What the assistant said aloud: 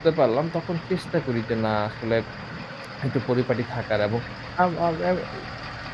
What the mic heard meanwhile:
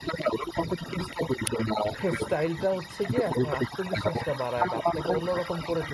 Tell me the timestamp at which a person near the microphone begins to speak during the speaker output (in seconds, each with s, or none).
2.0 s